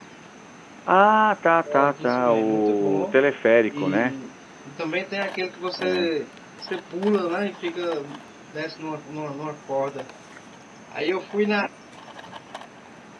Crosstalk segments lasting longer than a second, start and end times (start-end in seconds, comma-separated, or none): 1.7-3.2